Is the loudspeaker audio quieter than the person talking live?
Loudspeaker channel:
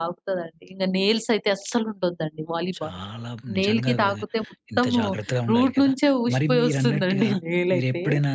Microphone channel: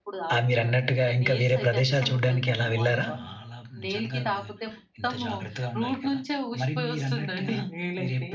Yes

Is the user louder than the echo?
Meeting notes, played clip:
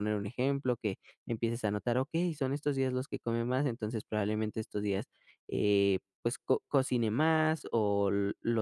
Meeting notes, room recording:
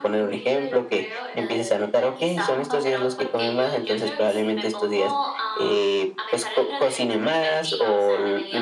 No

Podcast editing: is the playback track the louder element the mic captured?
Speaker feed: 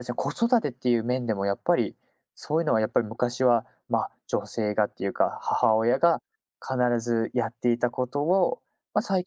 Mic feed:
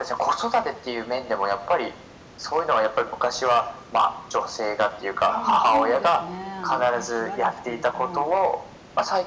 Yes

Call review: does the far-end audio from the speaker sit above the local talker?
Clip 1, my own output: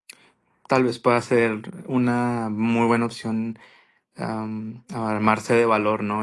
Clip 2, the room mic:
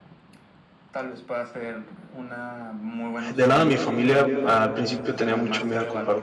No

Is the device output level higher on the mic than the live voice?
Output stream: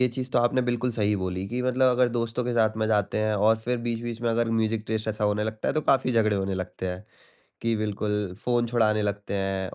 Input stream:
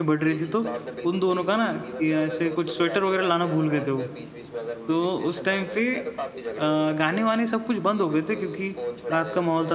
No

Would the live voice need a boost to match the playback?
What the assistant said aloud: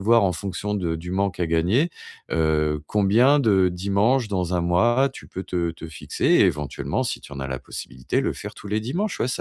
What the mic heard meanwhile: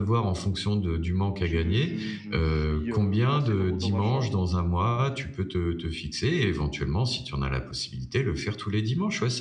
Yes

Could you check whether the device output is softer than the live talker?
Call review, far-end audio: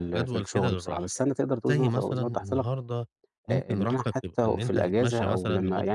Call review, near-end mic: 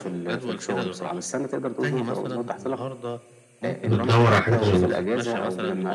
Yes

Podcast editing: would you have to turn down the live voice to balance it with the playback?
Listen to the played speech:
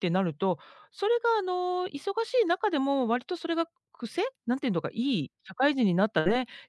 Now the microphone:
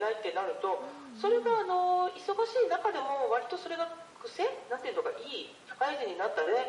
No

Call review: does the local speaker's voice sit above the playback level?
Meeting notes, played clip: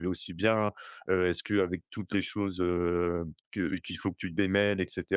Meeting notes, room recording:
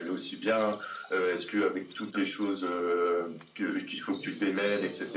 No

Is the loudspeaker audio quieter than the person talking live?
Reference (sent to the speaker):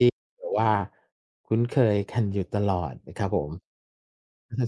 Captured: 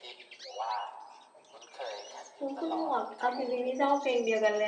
Yes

